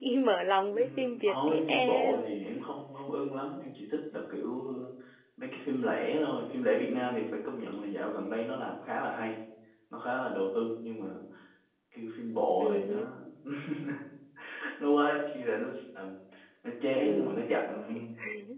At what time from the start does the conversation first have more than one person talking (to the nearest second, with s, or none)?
1 s